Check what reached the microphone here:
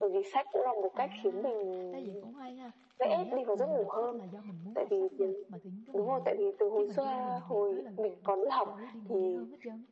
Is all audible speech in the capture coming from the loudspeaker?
No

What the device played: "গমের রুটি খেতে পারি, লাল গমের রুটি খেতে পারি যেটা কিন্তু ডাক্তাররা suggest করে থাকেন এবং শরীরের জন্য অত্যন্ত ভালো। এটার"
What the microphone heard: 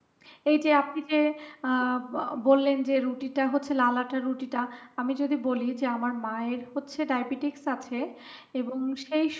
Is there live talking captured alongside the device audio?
Yes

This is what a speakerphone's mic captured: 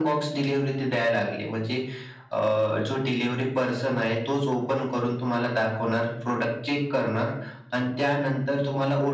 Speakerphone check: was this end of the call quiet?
Yes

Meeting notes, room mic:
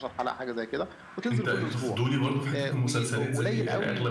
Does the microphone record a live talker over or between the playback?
Yes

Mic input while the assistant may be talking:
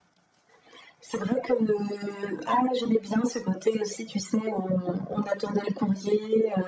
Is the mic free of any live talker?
Yes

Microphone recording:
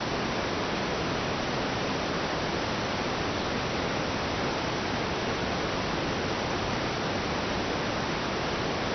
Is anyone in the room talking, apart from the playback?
No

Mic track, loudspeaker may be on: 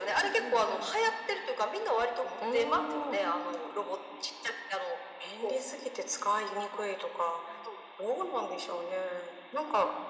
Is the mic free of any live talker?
Yes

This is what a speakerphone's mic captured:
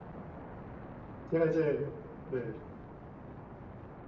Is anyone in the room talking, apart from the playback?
Yes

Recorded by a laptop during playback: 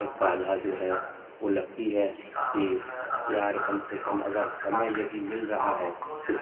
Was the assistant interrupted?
Yes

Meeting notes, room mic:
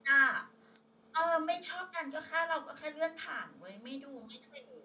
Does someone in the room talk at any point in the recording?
Yes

